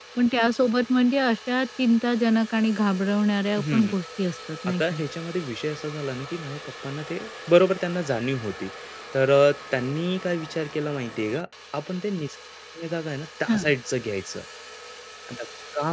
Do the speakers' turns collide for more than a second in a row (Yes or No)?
No